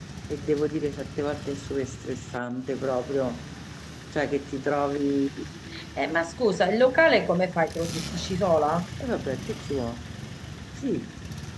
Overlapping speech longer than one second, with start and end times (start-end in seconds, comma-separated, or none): none